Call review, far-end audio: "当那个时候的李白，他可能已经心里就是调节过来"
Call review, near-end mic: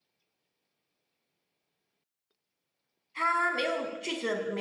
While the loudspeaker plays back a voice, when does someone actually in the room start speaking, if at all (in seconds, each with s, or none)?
3.1 s